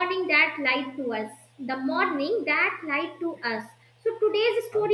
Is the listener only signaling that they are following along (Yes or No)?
Yes